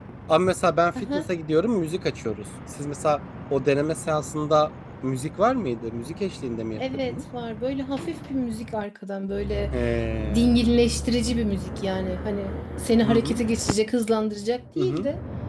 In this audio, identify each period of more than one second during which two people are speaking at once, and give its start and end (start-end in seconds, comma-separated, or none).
none